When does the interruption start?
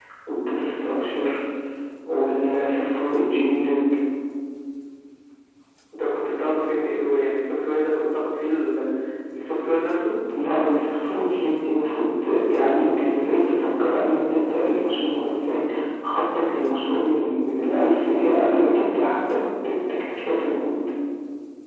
none

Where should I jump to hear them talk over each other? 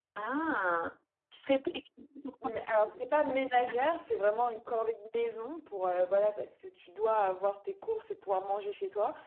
none

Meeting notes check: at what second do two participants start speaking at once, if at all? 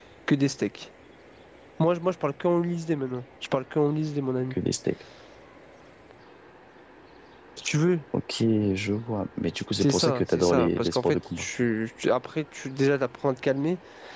9.8 s

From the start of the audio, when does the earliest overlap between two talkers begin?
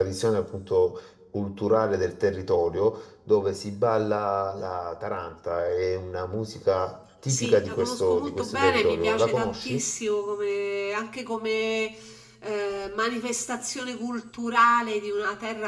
7.3 s

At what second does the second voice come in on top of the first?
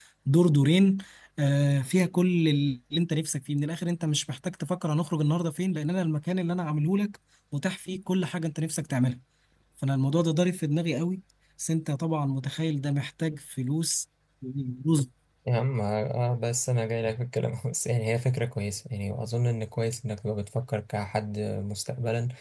none

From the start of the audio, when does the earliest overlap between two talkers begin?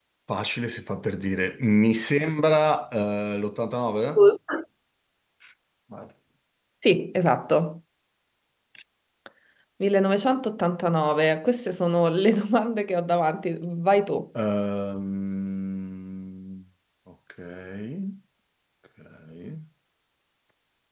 none

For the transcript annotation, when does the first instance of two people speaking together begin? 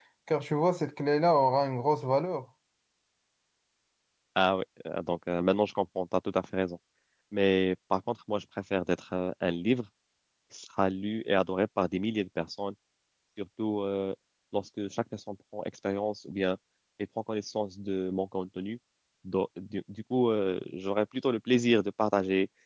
none

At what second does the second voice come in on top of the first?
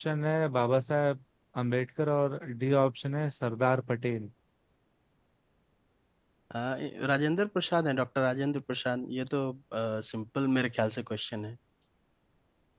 none

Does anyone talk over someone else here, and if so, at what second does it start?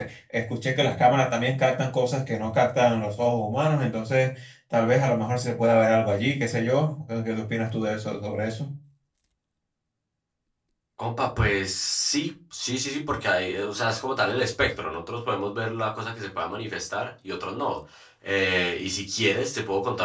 none

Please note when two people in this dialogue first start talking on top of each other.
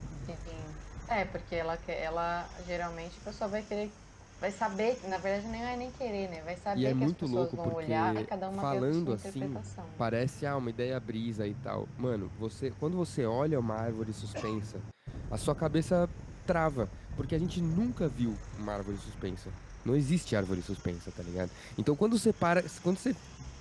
6.7 s

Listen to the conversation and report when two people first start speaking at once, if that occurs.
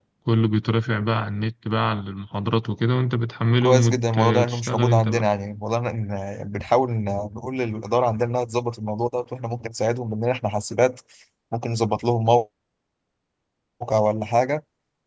3.6 s

